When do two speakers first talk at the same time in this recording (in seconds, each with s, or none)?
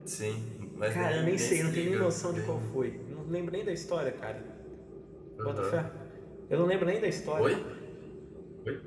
0.9 s